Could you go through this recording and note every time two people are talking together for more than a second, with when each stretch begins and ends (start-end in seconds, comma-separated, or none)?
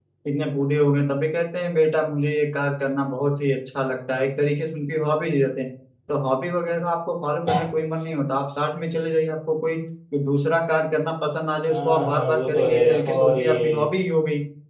11.7-13.8